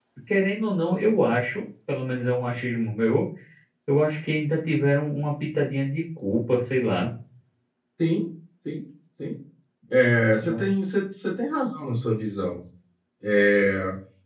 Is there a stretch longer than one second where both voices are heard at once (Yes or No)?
No